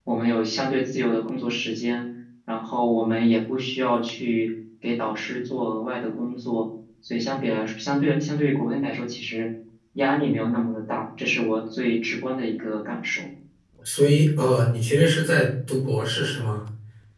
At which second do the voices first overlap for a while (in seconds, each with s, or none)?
none